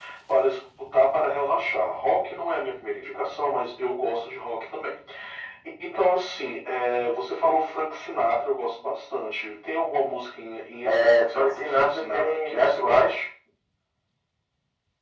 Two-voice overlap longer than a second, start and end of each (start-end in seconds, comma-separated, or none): 10.8-13.1